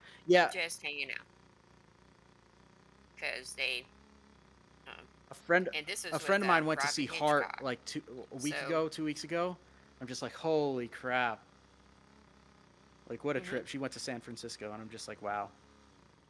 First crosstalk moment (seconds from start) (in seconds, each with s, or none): 6.1 s